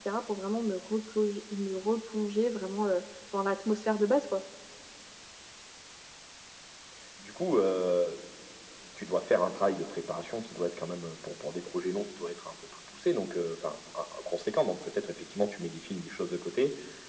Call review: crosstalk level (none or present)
none